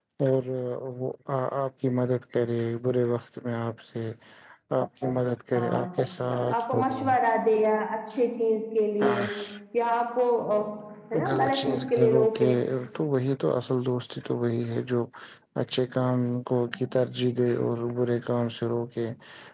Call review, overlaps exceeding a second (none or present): present